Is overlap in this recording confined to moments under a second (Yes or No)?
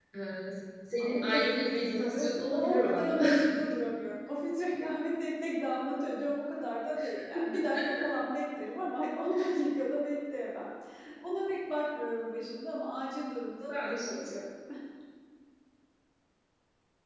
No